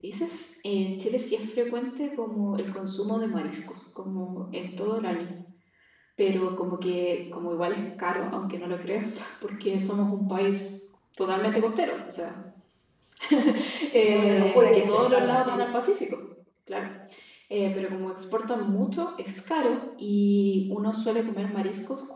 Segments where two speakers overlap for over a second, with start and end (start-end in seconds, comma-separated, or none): 14.0-15.6